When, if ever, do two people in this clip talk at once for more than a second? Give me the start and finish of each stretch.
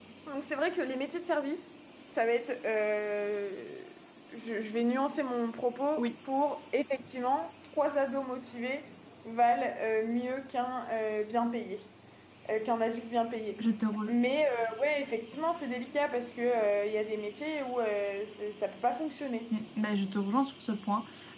none

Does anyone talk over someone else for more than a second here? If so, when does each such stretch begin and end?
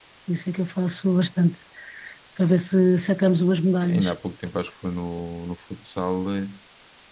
none

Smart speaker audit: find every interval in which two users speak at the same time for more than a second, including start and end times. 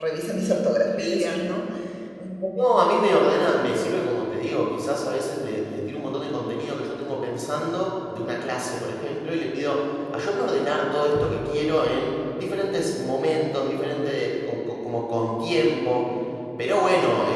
none

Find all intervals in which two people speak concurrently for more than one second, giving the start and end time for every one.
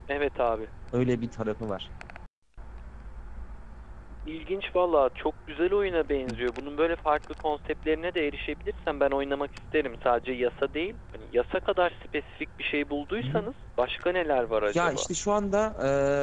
none

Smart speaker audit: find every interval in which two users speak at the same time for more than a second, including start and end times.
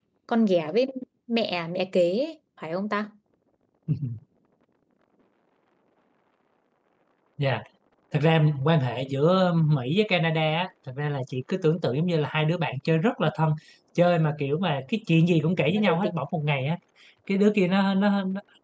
none

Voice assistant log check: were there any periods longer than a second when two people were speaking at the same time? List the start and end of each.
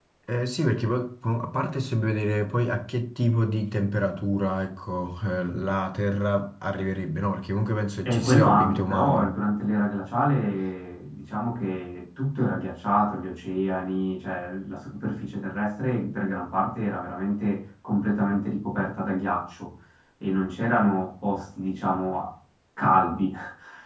8.0-9.3

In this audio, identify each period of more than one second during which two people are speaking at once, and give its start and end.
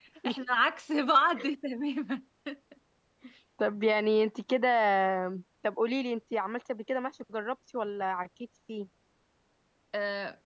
none

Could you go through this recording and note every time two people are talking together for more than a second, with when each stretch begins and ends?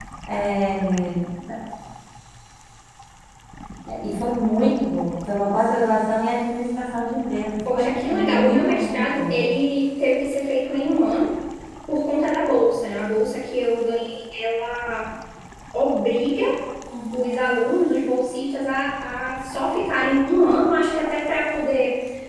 7.7-9.5

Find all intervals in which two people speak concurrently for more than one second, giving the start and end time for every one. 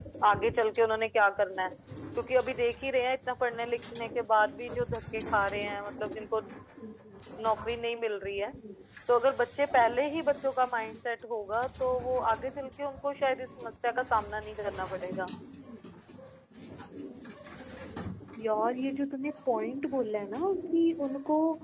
none

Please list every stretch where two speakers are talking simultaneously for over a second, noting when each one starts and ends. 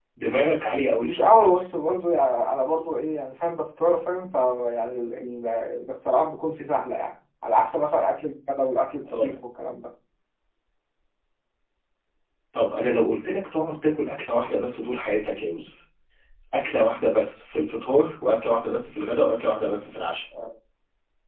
none

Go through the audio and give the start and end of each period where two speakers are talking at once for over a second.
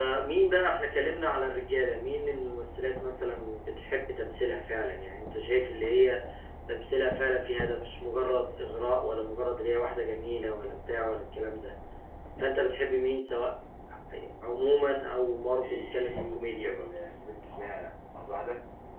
15.6-16.9

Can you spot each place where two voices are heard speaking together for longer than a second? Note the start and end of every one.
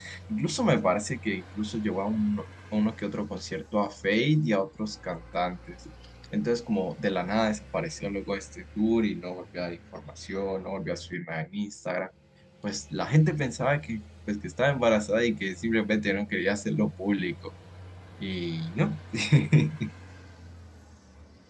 none

